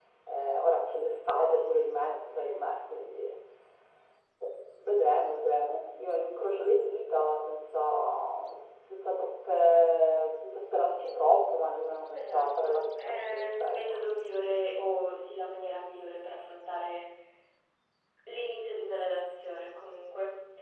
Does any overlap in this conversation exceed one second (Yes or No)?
Yes